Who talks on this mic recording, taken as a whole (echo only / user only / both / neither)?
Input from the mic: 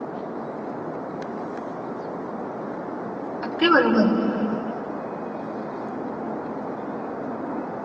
user only